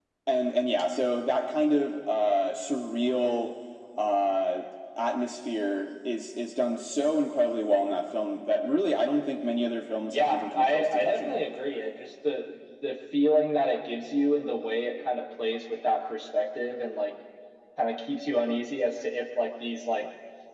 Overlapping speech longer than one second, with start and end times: 10.1-11.5

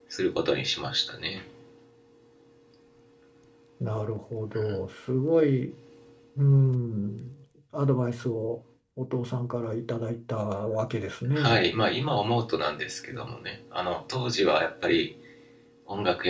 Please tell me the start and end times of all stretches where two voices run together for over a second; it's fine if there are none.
none

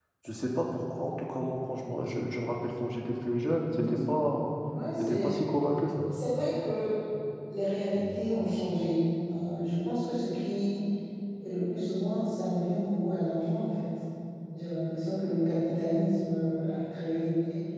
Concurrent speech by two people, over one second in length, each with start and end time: none

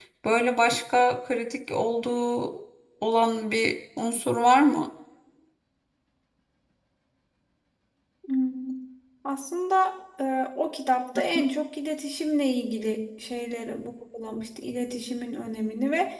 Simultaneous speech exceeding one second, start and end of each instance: none

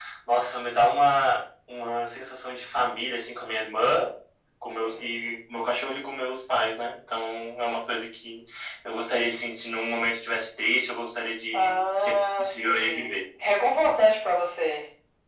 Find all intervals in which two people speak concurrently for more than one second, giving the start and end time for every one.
11.5-13.1

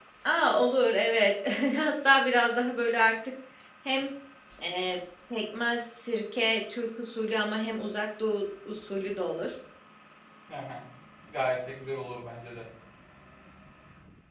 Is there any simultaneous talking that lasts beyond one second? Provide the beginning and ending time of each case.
none

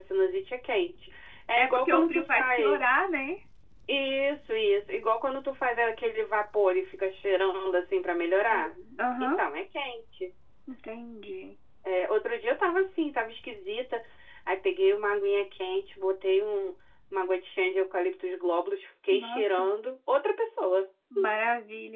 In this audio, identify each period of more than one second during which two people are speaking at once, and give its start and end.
1.6-2.8

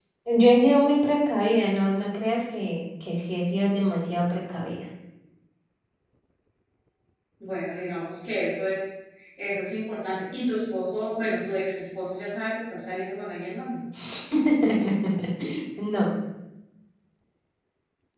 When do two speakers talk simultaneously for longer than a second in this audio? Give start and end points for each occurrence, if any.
none

